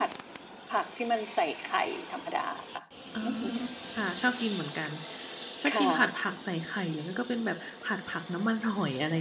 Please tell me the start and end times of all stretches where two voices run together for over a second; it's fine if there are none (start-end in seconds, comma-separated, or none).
none